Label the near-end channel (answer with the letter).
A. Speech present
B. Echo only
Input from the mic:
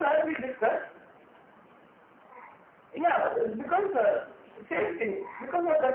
B